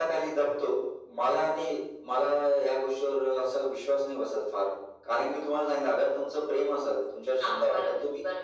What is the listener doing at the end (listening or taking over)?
listening